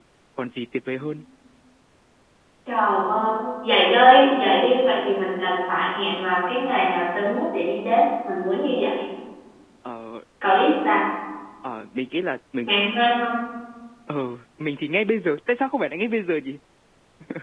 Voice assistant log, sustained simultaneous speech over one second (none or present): none